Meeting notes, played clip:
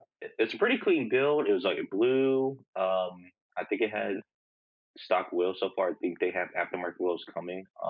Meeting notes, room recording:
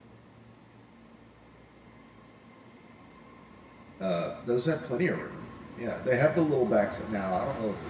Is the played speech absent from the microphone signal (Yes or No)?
Yes